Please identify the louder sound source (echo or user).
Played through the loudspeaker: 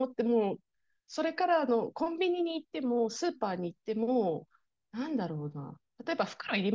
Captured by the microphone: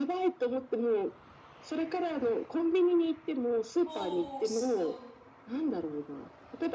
echo